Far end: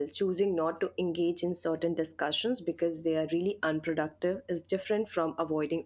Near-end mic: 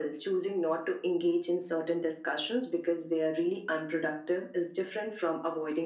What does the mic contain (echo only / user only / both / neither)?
echo only